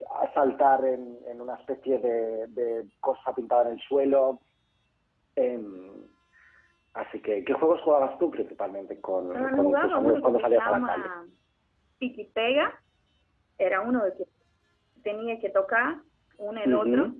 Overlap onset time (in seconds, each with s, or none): 9.3 s